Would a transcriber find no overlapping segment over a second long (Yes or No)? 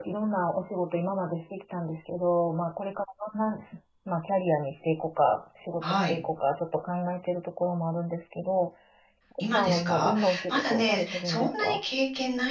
No